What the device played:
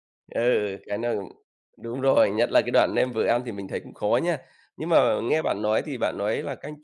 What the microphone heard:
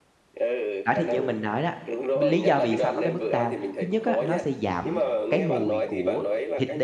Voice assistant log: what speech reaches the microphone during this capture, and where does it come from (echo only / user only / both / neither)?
both